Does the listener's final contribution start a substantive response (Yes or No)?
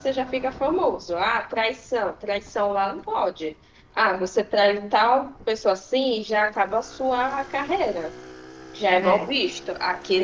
No